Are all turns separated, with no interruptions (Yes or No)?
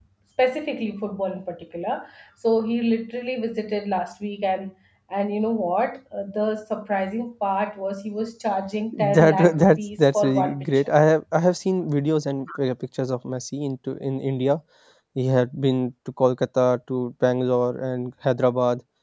No